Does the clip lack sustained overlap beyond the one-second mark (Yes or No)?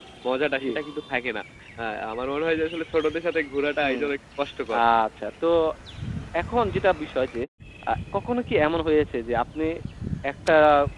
Yes